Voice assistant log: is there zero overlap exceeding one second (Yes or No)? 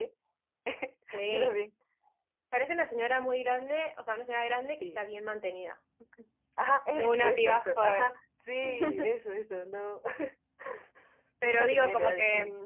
No